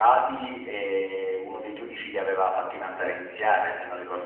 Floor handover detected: Yes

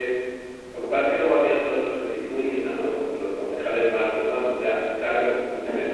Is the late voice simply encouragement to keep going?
Yes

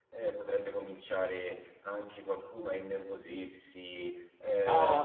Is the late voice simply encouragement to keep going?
No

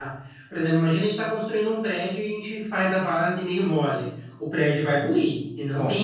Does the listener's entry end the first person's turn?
No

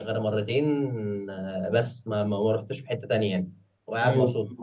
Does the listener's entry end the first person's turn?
Yes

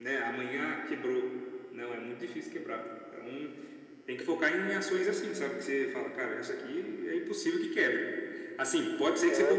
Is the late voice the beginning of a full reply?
No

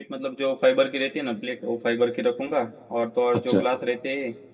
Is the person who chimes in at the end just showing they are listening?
Yes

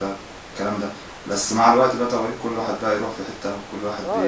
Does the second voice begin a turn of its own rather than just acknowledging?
Yes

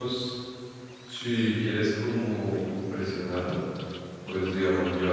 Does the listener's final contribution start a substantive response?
No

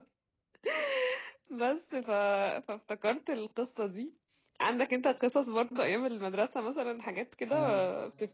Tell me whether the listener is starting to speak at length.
Yes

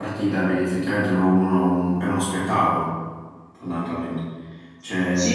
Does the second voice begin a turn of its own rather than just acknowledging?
Yes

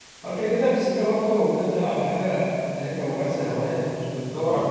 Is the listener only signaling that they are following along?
Yes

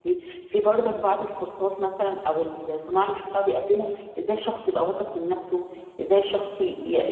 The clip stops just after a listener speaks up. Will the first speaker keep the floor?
Yes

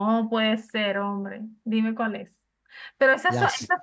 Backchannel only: Yes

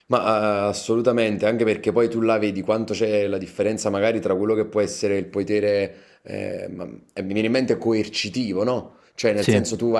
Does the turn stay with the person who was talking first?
Yes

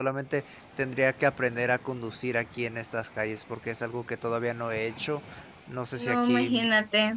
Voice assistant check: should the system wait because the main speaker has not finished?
No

